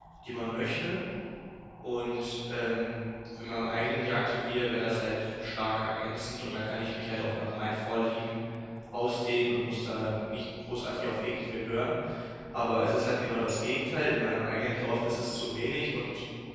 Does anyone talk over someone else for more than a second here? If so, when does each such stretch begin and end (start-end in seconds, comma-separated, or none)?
none